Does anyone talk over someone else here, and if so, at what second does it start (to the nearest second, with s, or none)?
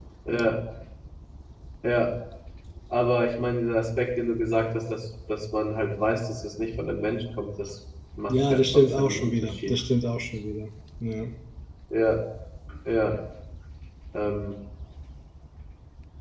8 s